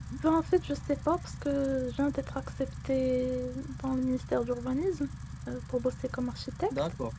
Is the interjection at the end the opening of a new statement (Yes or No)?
No